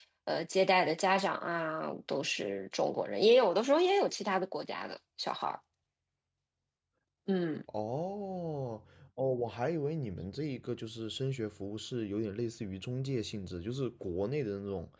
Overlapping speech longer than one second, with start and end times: none

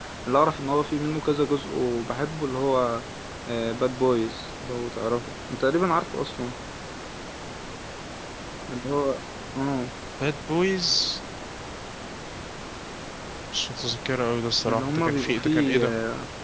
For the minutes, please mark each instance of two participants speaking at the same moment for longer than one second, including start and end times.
14.7-15.9

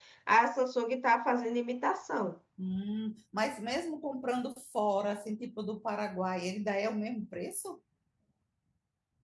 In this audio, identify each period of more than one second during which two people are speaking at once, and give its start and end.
none

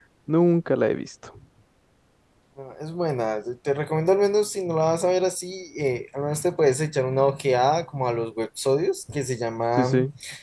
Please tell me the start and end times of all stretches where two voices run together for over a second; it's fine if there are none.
none

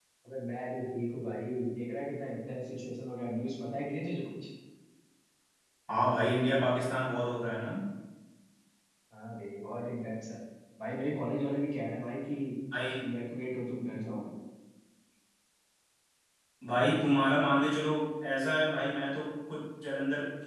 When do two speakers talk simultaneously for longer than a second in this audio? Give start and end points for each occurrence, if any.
none

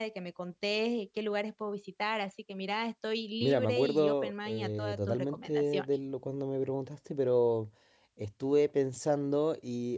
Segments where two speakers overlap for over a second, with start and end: 3.4-5.8

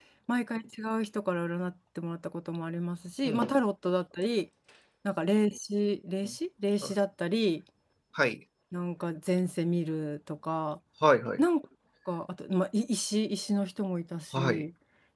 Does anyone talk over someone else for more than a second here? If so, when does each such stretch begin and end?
none

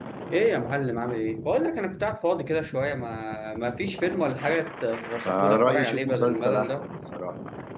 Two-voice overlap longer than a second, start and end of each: 5.5-6.8

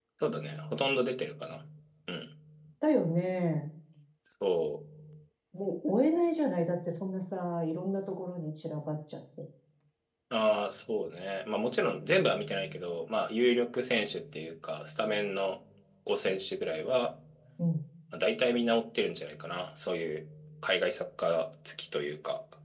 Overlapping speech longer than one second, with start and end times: none

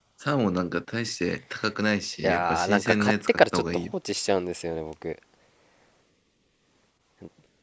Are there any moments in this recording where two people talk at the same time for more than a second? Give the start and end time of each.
2.2-3.8

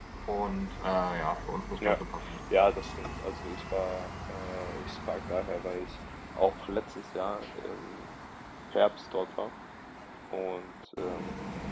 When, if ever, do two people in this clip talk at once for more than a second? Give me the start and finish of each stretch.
none

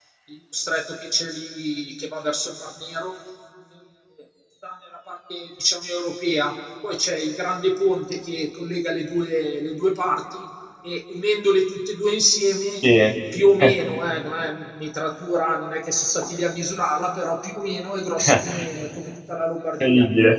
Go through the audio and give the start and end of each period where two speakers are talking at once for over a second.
none

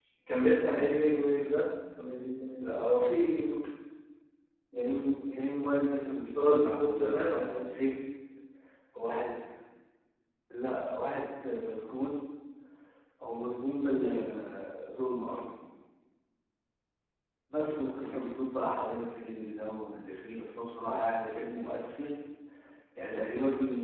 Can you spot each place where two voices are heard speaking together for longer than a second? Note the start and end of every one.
6.4-7.6

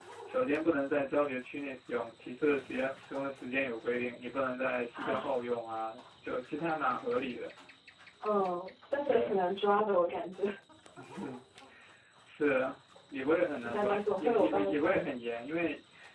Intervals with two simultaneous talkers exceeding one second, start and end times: 13.7-15.0

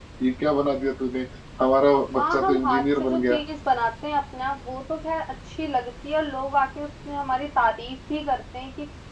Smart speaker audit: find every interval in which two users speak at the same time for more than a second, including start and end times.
2.2-3.4

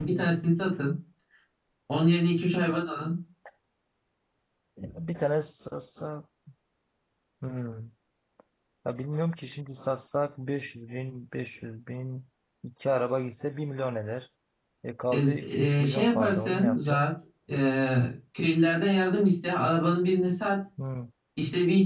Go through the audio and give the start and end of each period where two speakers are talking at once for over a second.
15.1-17.1

